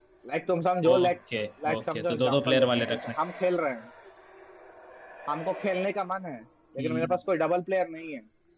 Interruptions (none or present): present